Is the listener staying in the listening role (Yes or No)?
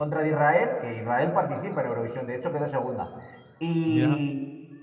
Yes